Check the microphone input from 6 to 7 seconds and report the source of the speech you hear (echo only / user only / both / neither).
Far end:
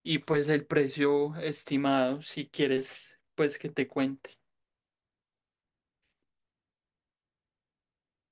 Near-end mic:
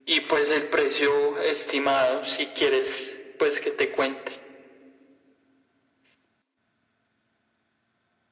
neither